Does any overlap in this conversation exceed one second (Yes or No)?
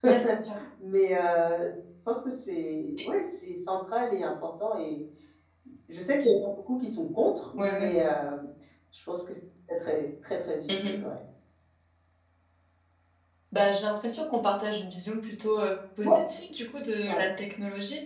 No